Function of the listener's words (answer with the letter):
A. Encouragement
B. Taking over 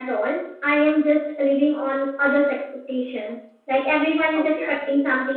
A